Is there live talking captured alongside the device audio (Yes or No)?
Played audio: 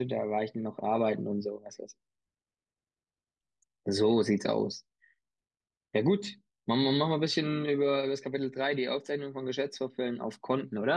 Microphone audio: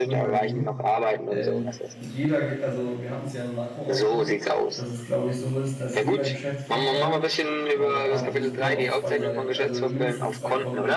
Yes